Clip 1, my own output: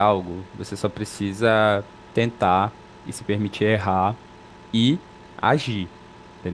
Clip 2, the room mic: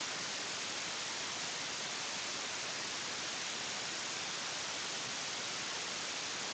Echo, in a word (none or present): none